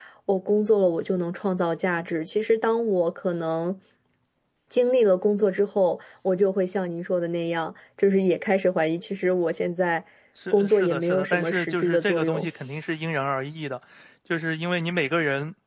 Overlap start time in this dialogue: 10.5 s

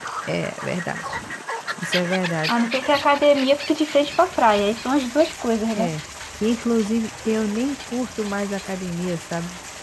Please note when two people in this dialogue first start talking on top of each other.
none

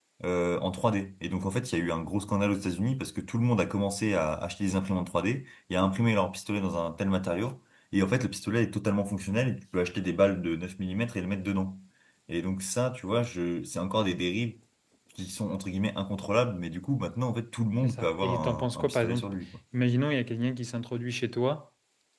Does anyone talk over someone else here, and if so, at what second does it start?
17.8 s

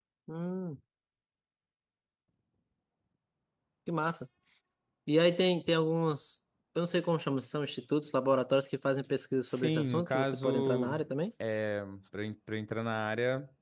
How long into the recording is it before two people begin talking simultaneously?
9.5 s

